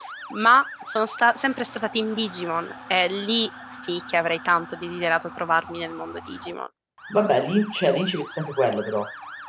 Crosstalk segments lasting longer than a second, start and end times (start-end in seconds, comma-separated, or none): none